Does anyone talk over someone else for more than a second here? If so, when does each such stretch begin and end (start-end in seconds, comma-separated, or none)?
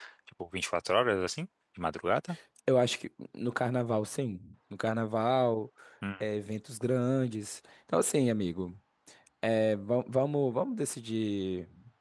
none